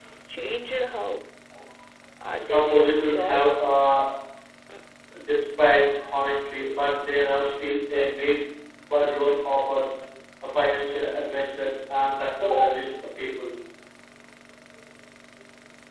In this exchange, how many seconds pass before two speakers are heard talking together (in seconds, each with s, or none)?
2.4 s